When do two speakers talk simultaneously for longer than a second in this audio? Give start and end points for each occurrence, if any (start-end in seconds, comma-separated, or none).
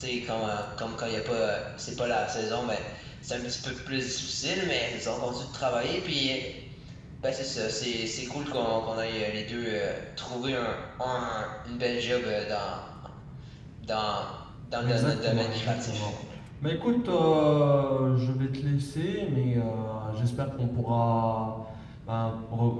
14.8-16.1